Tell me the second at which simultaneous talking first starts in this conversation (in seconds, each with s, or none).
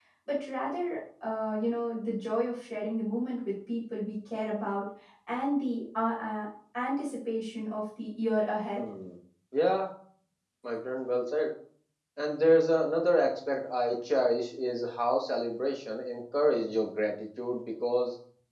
none